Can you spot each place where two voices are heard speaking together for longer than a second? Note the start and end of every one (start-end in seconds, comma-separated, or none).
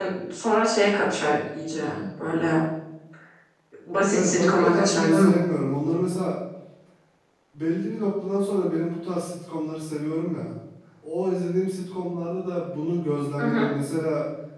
4.1-5.3